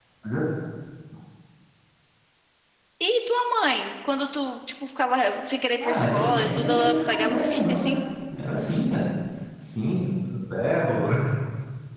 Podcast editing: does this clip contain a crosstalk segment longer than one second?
Yes, from 5.8 s

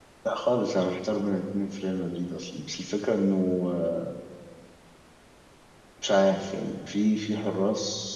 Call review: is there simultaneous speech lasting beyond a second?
No

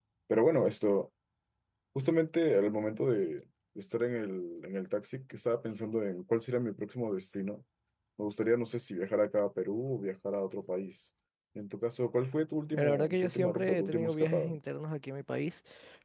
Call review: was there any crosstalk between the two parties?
Yes, from 12.7 s

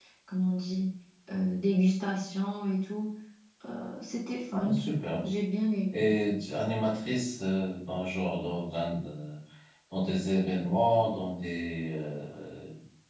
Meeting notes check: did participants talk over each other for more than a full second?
No

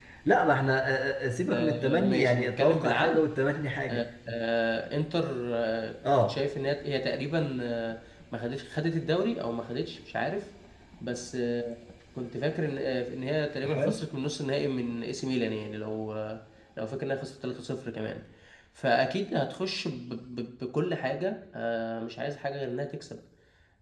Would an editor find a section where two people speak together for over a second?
Yes, from 1.5 s

